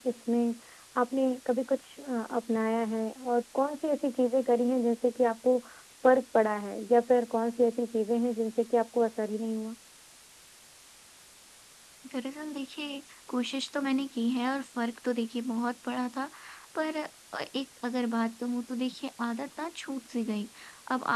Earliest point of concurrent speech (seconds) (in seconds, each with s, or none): none